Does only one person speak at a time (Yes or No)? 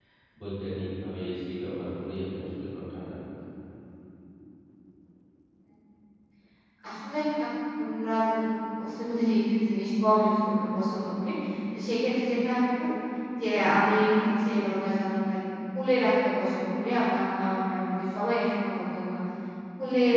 Yes